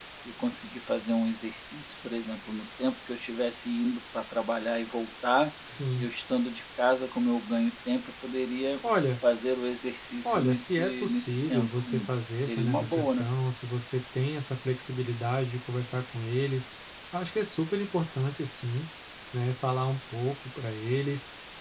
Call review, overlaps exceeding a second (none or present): present